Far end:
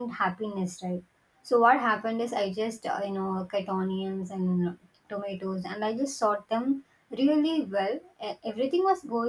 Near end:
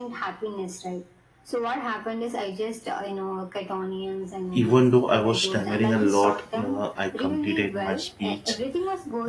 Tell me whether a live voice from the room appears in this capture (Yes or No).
Yes